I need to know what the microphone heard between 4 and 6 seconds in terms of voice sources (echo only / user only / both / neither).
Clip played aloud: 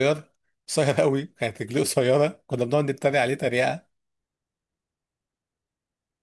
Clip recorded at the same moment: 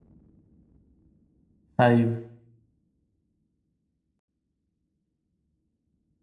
neither